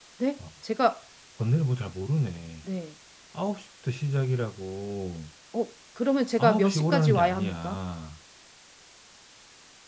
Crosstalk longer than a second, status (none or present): present